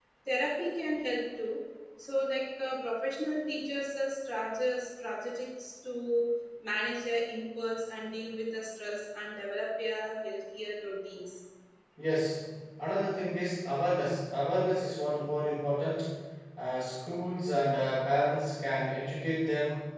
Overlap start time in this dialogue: none

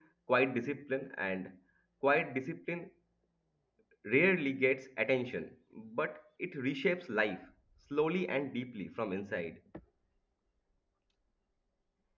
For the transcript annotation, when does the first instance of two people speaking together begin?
none

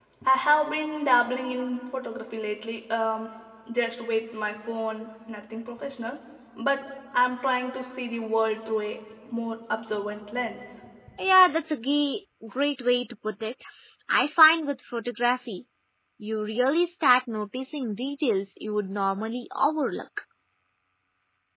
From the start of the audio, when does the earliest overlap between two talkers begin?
none

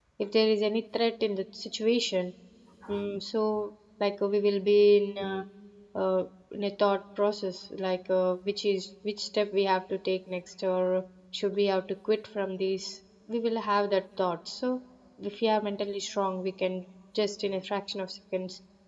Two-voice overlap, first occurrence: none

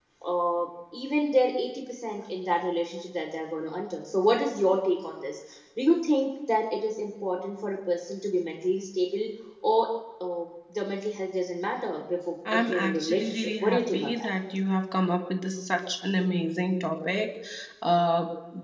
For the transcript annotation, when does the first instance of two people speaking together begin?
12.4 s

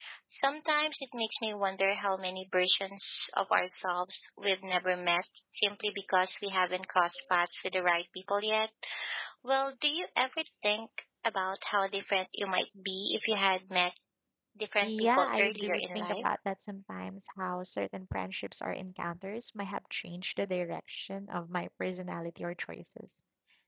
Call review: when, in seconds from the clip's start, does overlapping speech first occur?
14.8 s

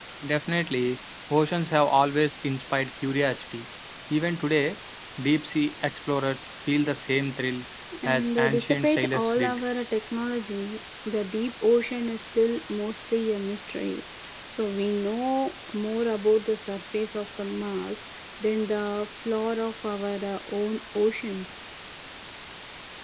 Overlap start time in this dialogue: 8.1 s

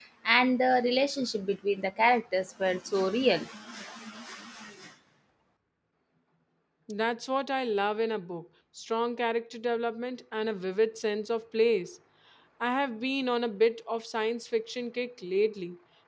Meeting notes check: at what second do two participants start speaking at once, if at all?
none

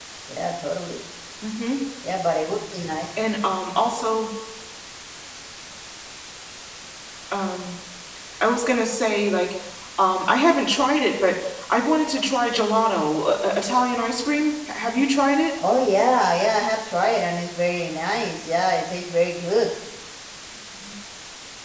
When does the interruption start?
none

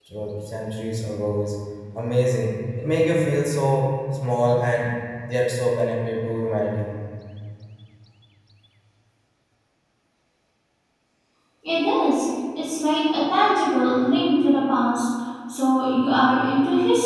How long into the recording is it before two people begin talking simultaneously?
none

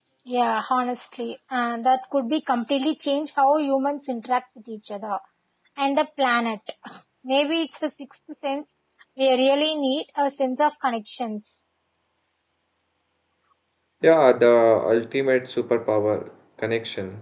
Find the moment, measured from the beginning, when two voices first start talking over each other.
none

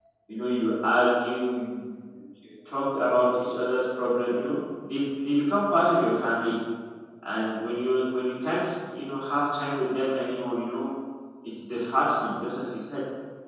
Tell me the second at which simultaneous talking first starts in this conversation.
none

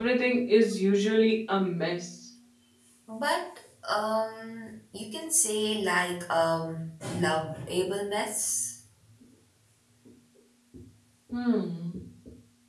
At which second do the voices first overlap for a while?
none

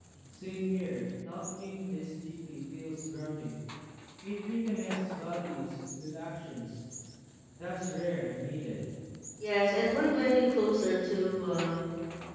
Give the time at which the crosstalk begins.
none

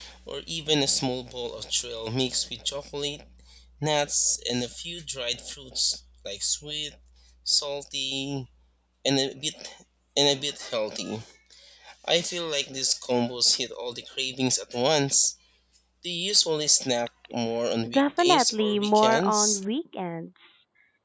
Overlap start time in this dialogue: 17.9 s

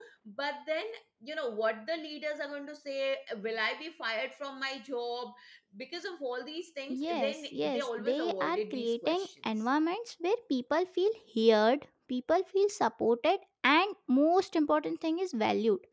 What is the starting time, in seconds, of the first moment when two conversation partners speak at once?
6.9 s

